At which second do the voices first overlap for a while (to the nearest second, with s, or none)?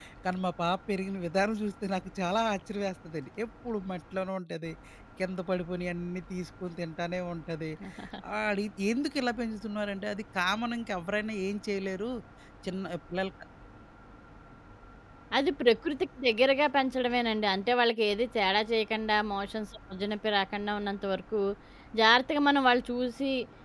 none